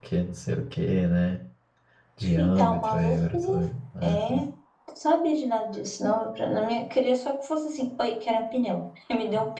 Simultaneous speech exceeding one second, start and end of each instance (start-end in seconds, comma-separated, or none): 2.4-3.6